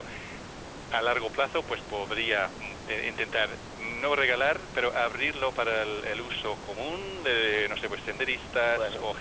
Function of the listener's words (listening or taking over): listening